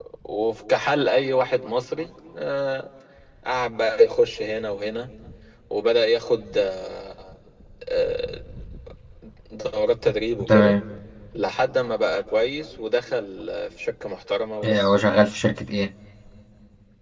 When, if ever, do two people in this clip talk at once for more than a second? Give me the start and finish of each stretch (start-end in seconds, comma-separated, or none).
none